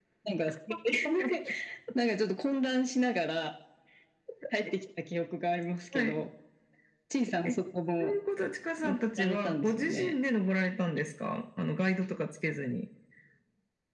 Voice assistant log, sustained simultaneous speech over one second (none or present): present